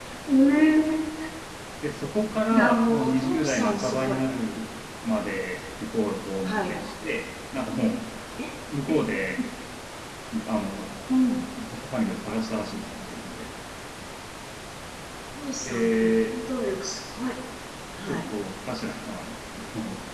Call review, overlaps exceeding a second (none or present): present